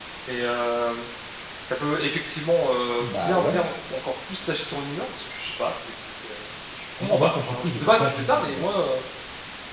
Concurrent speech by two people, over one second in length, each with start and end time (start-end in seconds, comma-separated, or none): 7.0-8.7